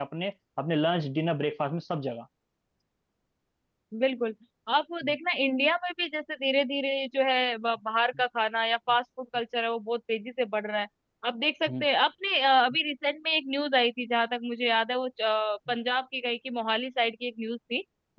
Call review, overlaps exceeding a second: none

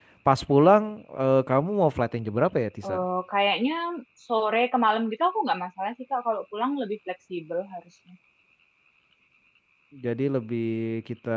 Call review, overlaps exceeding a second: none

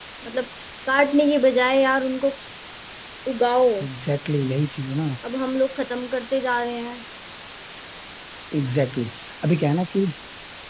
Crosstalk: none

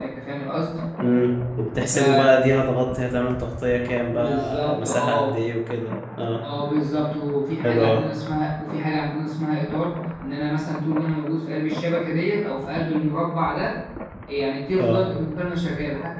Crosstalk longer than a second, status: present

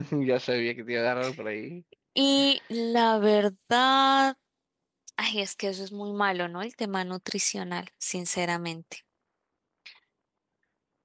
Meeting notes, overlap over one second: none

